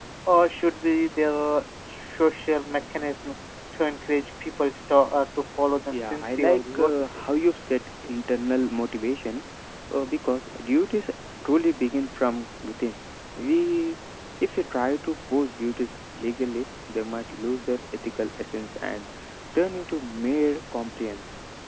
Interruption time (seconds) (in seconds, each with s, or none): 5.9 s